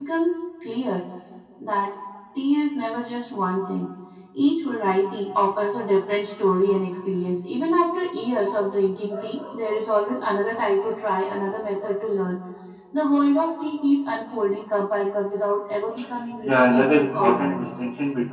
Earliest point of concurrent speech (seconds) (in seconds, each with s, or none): 16.4 s